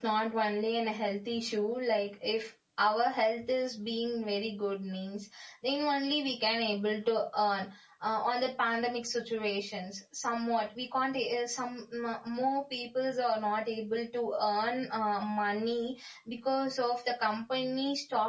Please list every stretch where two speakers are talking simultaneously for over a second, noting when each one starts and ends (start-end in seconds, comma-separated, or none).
none